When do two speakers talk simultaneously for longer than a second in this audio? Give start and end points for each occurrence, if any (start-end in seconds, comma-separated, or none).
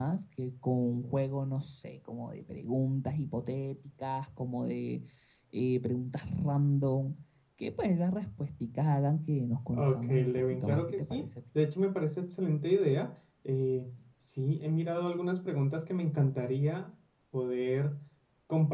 9.7-11.2